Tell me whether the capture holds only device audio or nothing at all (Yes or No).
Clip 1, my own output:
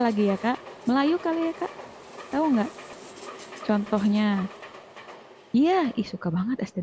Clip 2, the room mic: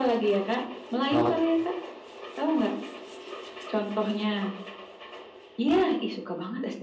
No